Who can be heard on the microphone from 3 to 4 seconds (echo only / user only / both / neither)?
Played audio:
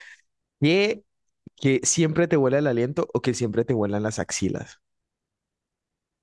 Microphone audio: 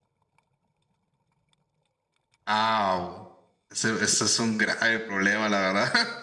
user only